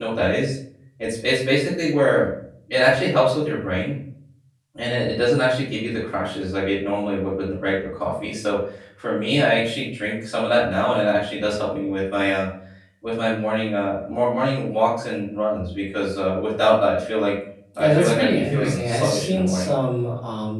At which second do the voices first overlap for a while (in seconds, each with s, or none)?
17.8 s